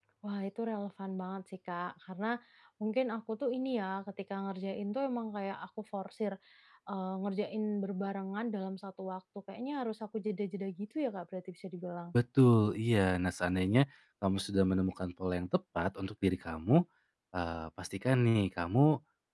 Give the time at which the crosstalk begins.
none

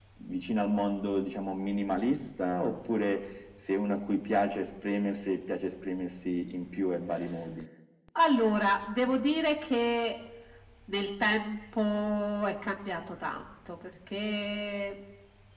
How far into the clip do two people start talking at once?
none

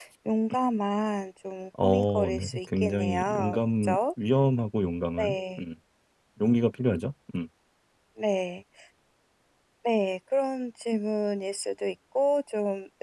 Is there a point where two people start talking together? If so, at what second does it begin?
1.8 s

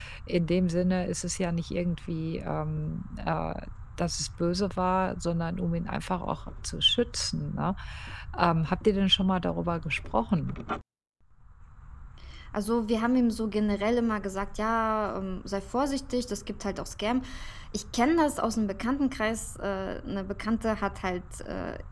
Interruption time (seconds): none

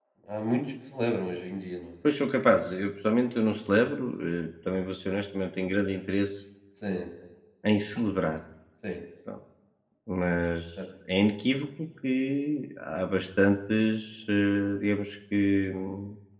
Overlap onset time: none

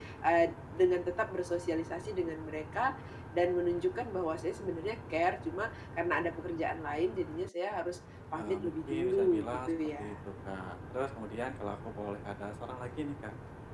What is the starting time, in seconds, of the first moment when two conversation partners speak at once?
8.4 s

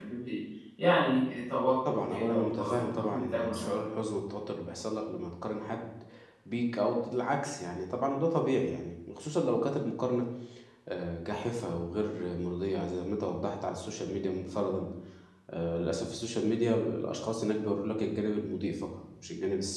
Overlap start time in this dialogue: 1.9 s

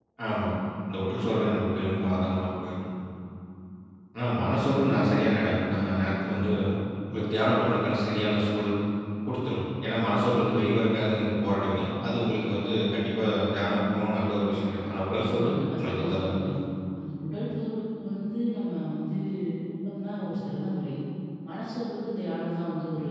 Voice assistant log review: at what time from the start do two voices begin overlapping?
15.2 s

